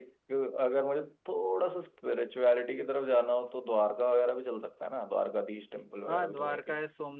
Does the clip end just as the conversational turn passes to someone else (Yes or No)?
Yes